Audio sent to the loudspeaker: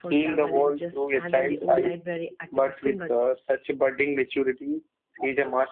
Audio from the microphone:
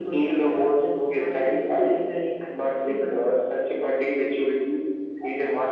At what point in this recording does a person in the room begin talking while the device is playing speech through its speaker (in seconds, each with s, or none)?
none